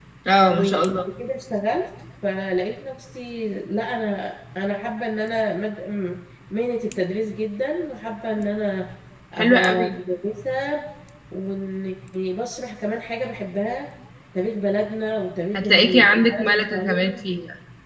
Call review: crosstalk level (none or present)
present